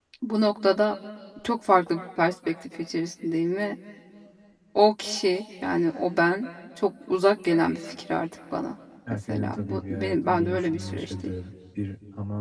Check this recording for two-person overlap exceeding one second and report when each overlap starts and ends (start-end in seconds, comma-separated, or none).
9.3-11.1